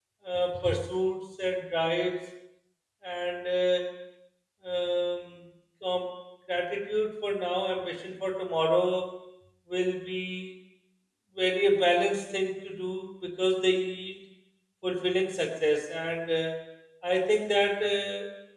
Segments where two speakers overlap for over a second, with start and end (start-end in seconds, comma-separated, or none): none